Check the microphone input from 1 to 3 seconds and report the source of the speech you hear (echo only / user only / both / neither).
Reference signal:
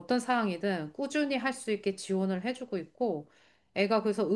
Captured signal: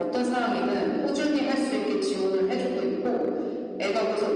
echo only